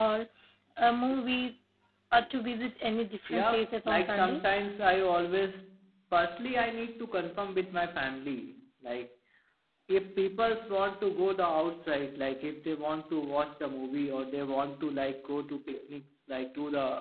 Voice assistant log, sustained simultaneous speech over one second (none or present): present